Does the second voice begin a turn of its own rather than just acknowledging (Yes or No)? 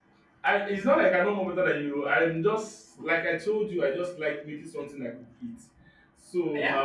No